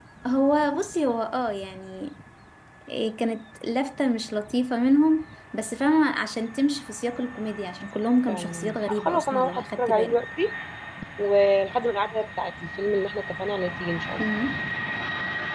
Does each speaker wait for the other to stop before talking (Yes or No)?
No